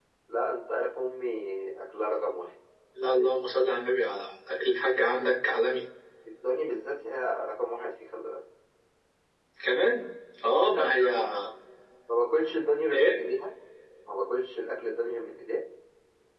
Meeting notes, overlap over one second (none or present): none